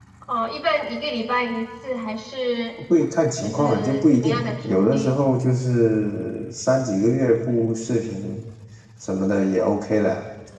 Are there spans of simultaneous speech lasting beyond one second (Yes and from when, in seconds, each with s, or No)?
Yes, from 3.4 s